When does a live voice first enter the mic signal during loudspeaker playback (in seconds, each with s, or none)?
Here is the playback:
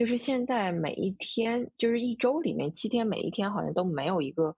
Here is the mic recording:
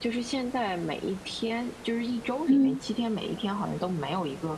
2.5 s